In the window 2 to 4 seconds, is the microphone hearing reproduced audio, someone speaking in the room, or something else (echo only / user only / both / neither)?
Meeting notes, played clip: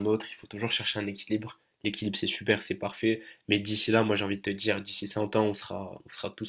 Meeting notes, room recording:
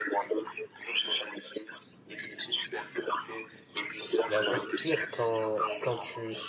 echo only